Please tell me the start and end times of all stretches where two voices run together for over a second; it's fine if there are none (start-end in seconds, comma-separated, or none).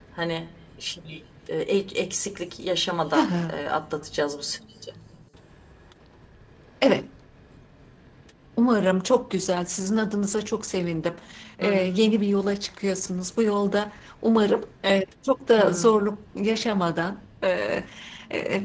none